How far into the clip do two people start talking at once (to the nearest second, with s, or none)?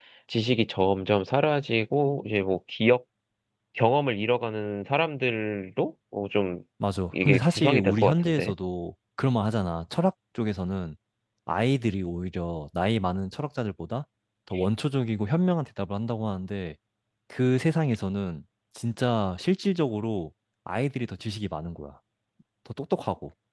7 s